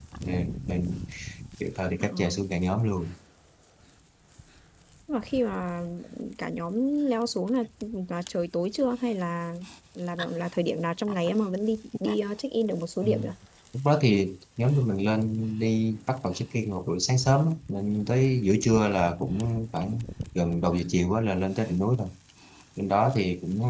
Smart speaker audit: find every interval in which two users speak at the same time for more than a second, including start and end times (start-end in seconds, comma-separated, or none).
none